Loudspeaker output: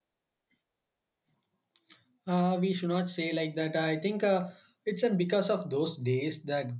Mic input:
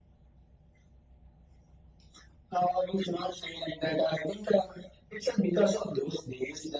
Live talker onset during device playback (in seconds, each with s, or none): none